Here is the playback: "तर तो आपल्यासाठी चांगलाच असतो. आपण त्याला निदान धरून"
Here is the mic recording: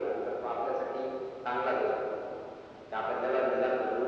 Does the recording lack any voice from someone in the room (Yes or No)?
Yes